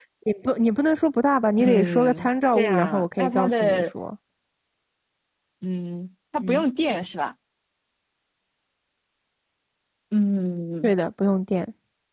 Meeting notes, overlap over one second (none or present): present